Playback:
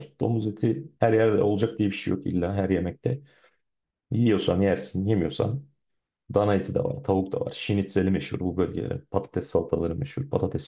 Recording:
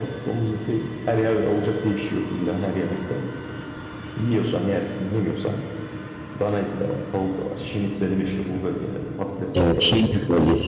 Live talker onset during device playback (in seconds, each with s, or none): 9.5 s